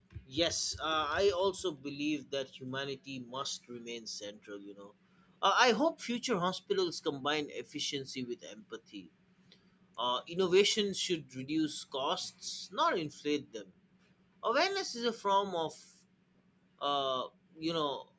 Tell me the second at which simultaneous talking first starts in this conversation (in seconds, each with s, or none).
none